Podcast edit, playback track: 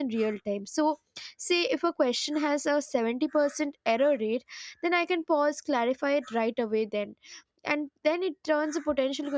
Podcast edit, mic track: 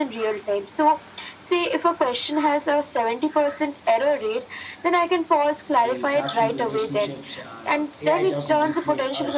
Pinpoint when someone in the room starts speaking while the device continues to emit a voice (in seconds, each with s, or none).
5.8 s